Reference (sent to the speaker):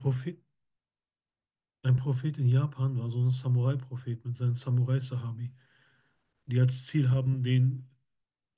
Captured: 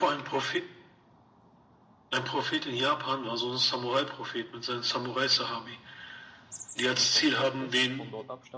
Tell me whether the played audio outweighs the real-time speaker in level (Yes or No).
Yes